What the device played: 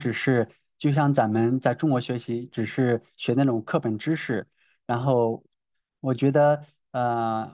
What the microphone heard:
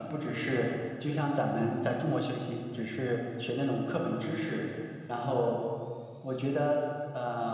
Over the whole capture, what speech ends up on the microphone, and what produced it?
echo only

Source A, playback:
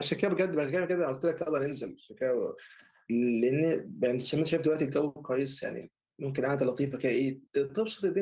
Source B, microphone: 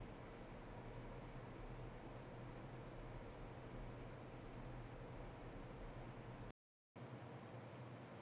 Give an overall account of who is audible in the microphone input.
neither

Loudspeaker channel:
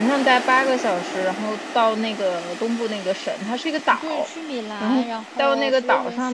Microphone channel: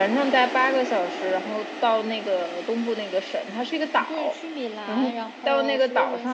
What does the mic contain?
echo only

